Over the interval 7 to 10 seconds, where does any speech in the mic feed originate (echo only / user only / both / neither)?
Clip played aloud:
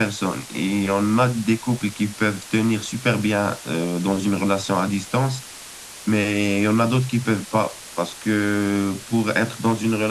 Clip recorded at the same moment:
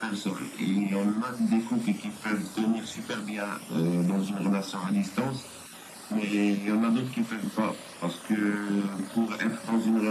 echo only